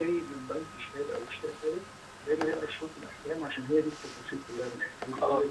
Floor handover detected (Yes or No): Yes